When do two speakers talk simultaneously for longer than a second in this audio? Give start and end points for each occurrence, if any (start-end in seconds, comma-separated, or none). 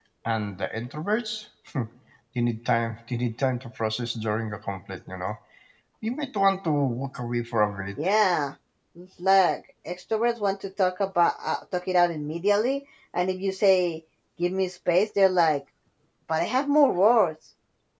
none